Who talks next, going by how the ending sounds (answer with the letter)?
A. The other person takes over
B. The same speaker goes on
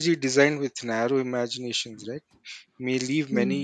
B